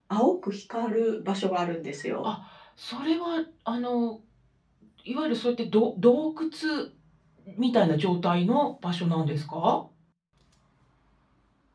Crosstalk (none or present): none